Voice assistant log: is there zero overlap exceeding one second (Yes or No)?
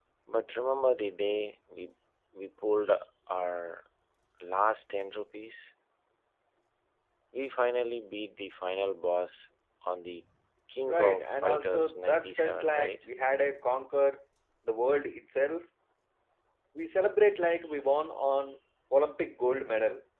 No